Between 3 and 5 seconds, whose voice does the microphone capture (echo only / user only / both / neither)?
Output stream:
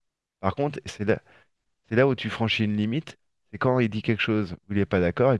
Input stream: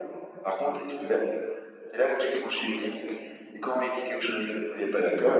echo only